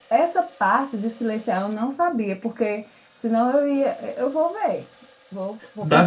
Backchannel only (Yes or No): No